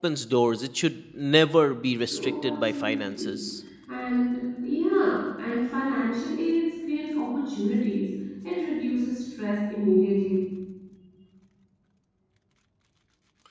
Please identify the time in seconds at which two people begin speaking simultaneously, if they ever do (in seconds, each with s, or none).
2.1 s